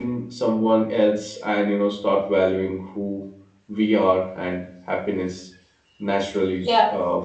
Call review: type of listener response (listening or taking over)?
taking over